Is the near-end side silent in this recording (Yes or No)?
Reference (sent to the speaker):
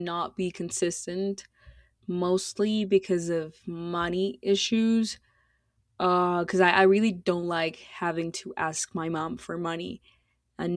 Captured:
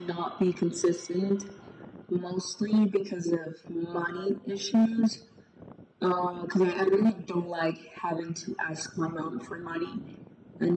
Yes